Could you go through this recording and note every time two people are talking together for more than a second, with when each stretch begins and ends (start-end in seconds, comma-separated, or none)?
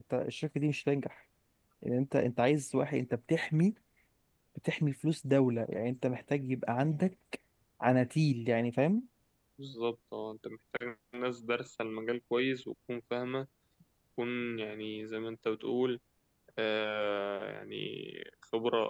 none